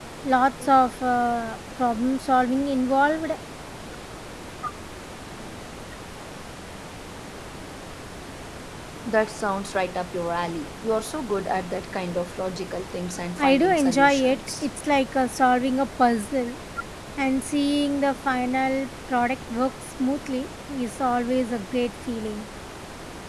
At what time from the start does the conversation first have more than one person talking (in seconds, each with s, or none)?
13.4 s